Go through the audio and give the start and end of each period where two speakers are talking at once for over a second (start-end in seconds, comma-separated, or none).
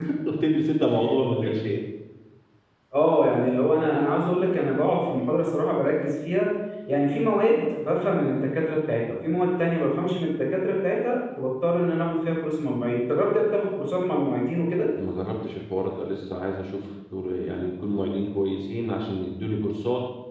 none